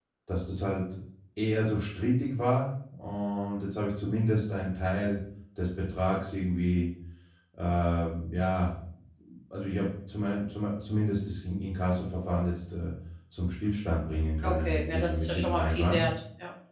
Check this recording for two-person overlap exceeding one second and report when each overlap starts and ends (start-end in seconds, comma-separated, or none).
14.4-16.0